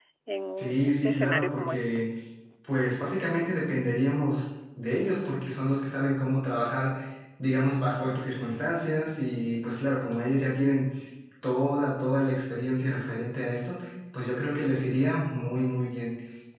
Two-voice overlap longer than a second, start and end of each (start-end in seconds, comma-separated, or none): 0.6-1.9